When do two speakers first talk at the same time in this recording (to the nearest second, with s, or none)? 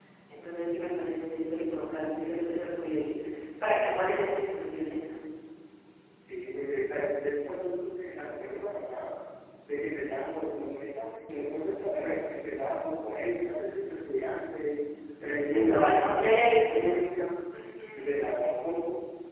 15 s